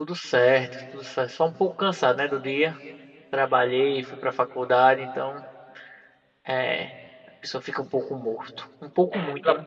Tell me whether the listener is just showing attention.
No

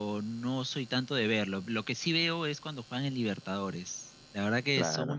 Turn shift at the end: No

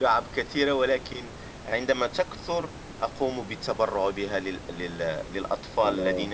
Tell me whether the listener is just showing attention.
Yes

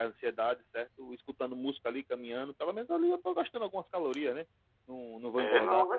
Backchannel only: No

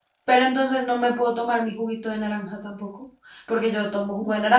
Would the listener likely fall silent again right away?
Yes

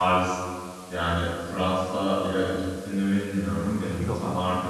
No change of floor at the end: Yes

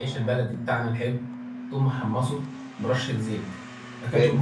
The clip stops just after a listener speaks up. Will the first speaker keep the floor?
Yes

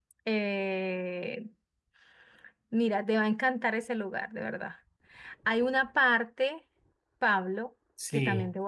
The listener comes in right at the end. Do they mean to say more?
No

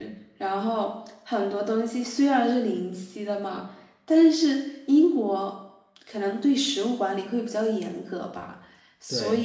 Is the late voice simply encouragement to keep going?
Yes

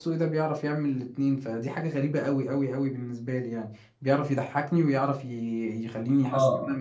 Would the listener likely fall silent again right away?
No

